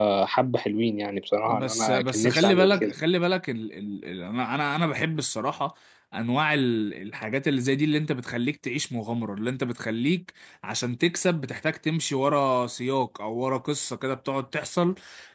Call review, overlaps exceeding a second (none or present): present